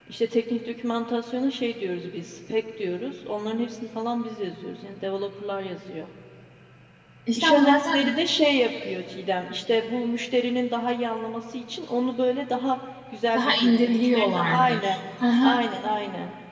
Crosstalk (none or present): present